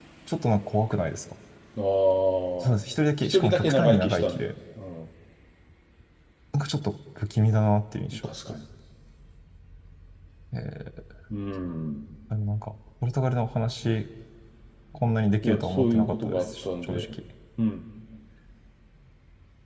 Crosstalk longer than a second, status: present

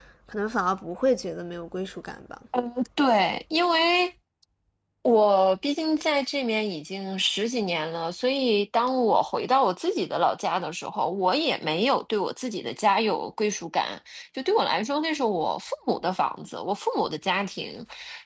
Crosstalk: none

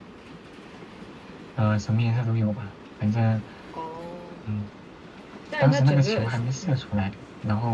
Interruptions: present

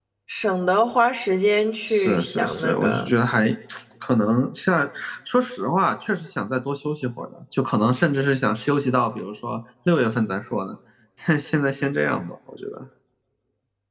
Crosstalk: present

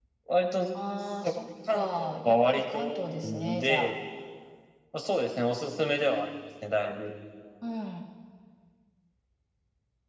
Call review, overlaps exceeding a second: present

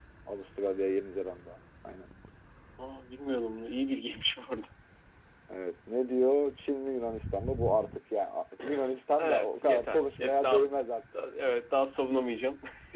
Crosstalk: present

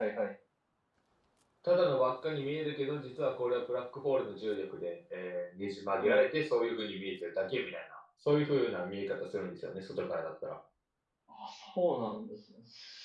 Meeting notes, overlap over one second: none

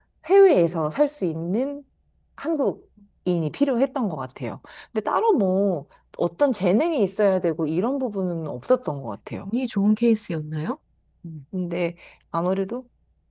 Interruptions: none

